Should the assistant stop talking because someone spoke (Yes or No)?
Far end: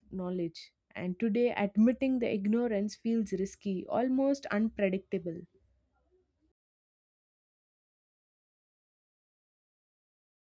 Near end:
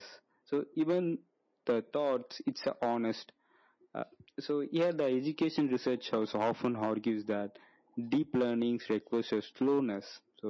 Yes